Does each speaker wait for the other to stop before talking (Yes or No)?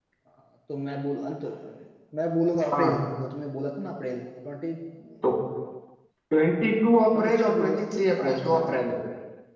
No